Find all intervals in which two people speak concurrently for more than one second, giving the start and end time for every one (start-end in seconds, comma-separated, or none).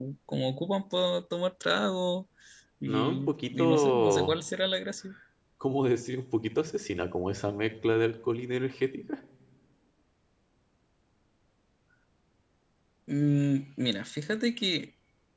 2.9-4.3